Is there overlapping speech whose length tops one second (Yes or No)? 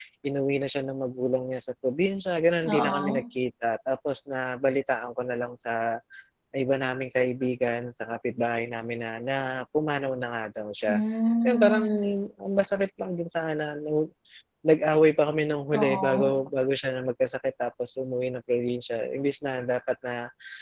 No